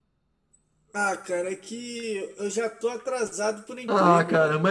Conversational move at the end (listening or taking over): taking over